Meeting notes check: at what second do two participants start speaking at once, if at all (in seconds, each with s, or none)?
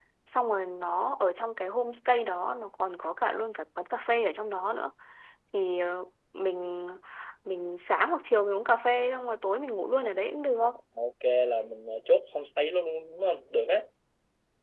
none